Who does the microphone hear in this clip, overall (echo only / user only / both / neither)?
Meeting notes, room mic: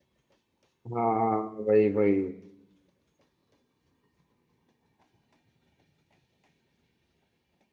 user only